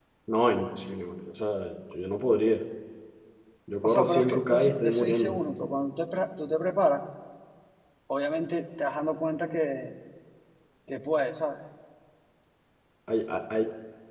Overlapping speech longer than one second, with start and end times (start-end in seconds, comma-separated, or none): 3.8-5.4